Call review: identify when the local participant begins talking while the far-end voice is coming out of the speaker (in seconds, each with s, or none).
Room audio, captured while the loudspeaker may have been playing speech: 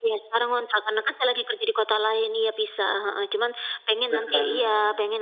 4.1 s